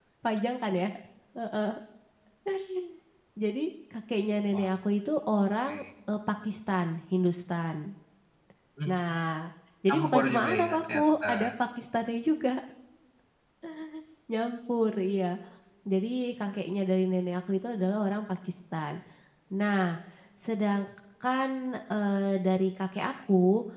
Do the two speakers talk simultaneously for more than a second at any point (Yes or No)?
Yes